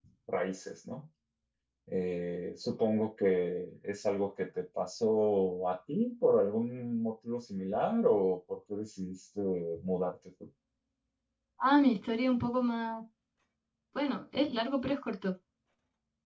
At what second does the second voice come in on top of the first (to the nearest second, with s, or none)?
none